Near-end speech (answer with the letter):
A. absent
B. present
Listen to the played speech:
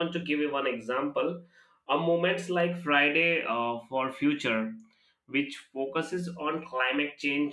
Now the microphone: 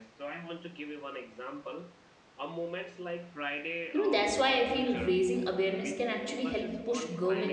B